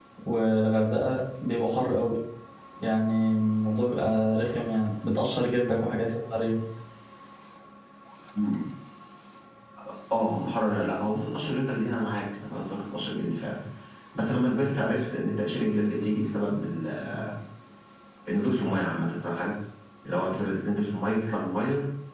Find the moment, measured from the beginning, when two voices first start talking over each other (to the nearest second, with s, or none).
none